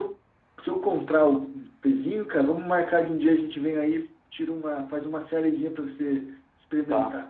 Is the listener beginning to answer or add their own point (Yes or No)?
Yes